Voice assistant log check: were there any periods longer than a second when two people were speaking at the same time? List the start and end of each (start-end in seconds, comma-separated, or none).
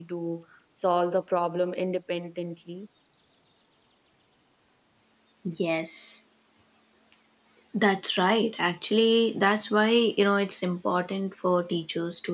none